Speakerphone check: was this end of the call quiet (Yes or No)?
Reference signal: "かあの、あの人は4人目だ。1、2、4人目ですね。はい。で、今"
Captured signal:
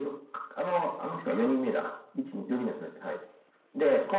Yes